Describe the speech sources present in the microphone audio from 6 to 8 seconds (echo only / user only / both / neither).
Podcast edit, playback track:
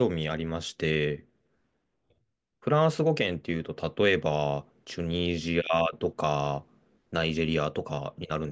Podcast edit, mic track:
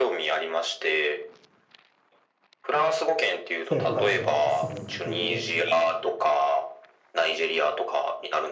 echo only